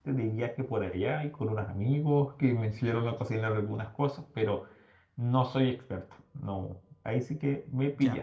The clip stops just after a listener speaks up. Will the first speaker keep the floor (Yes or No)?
No